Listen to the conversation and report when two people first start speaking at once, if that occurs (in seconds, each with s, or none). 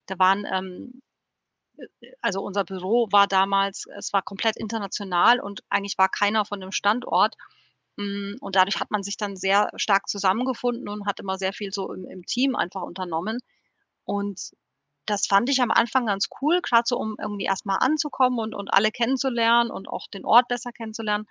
none